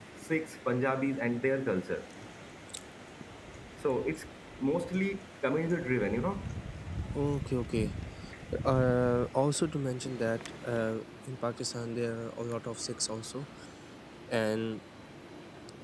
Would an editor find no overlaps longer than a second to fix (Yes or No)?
Yes